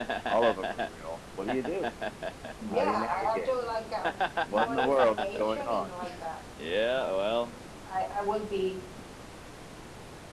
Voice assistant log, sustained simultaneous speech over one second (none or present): present